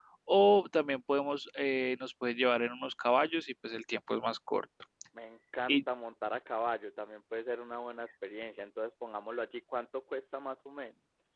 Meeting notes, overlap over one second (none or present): none